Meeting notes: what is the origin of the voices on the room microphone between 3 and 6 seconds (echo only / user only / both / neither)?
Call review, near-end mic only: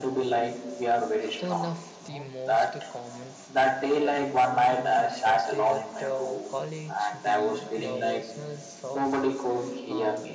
both